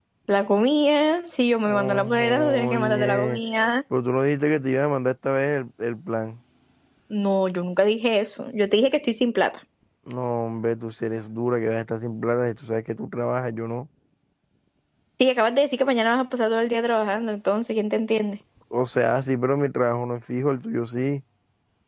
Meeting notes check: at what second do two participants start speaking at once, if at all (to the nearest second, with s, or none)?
2 s